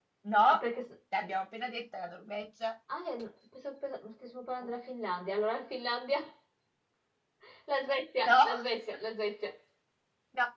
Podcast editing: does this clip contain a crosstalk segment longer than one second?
No

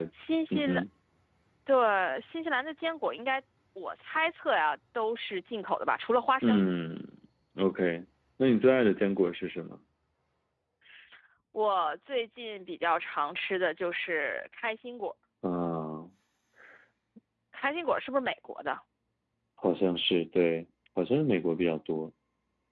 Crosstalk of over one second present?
No

